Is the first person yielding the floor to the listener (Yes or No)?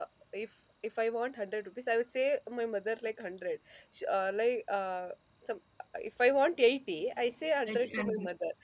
No